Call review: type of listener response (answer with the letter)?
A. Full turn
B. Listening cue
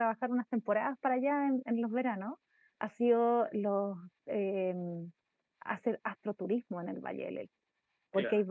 B